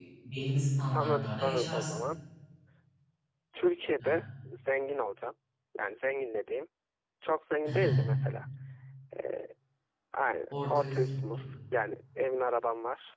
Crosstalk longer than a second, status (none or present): present